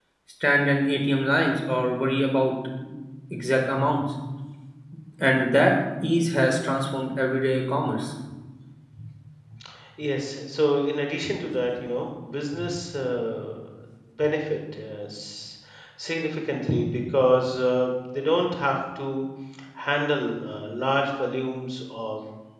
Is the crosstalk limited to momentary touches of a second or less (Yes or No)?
Yes